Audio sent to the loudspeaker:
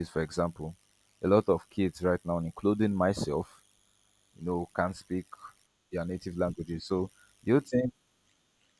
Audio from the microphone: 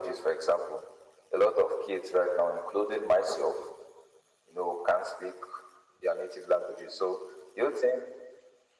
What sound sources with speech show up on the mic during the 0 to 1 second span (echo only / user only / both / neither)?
echo only